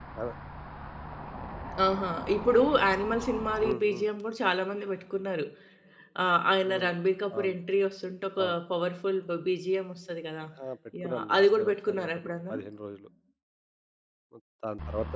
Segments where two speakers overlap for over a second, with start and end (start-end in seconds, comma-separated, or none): 11.0-12.6